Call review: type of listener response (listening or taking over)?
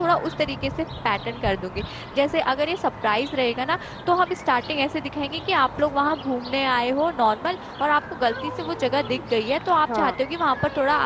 listening